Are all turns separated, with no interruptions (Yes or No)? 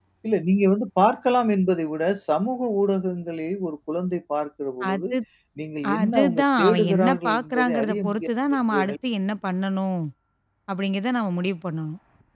No